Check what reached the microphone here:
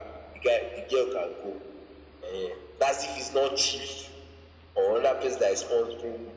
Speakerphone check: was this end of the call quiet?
Yes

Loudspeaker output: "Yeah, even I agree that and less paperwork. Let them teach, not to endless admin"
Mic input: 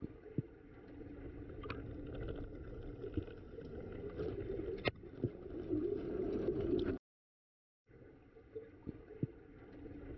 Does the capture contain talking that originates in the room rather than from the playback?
No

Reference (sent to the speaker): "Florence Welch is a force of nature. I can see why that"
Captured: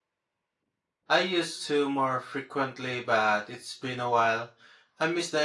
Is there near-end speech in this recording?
Yes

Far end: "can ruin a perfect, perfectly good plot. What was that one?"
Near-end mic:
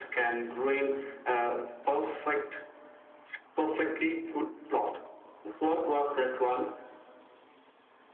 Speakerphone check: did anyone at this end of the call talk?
No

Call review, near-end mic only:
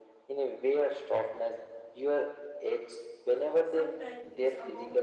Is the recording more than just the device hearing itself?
Yes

